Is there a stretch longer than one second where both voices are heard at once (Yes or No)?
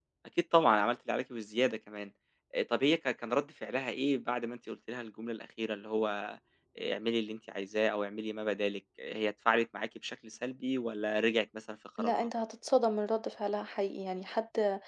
No